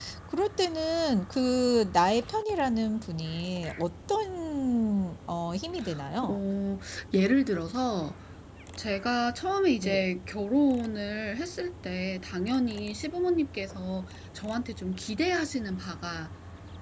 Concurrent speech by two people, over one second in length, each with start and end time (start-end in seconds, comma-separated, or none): none